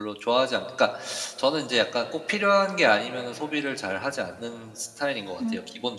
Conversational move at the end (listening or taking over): taking over